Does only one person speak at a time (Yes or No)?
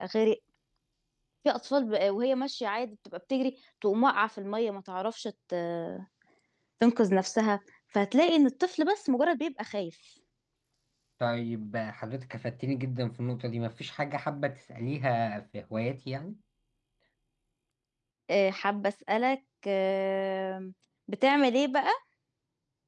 Yes